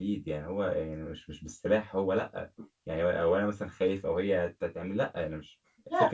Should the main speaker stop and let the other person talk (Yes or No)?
No